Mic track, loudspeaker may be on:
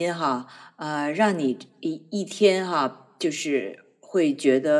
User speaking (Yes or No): Yes